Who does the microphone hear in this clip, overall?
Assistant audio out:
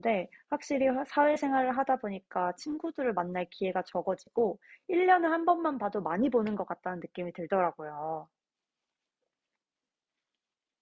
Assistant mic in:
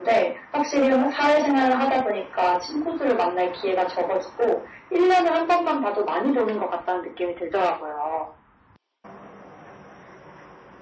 echo only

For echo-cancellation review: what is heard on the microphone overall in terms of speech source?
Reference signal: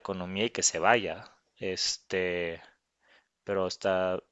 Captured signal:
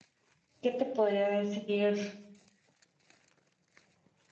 user only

